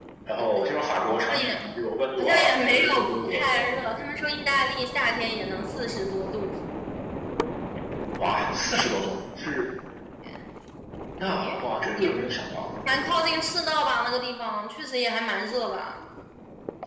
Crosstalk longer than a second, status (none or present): present